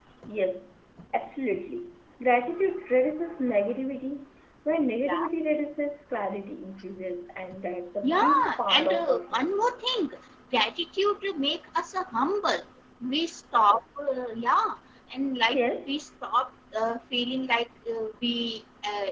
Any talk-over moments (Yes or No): Yes